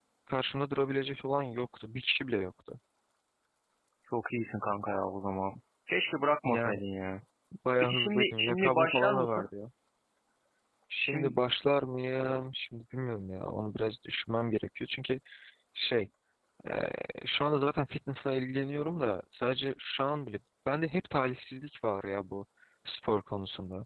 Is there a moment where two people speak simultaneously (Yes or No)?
Yes